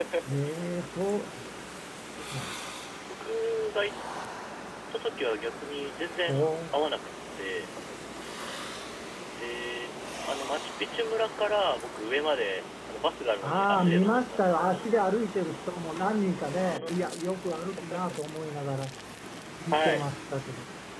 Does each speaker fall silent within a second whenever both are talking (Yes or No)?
No